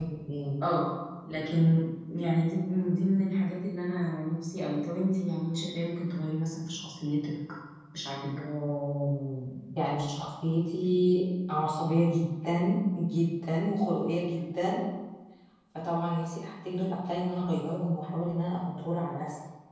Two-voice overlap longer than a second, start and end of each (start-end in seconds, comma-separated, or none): none